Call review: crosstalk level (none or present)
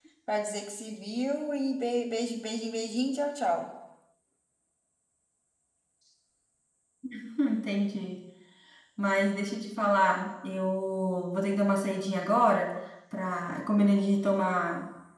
none